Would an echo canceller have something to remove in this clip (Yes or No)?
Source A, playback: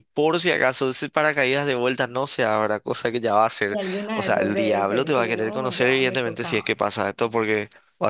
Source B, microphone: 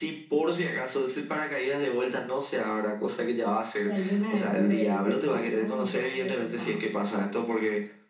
Yes